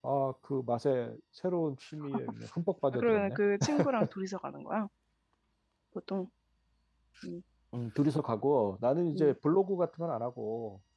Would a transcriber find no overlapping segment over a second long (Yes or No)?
Yes